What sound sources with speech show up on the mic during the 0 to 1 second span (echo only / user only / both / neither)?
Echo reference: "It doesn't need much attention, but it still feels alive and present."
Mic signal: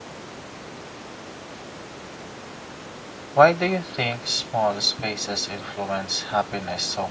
neither